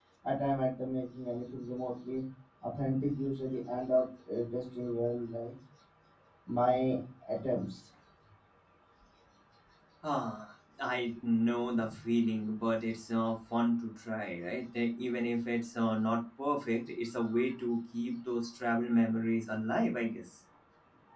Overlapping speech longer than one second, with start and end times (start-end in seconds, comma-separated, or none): none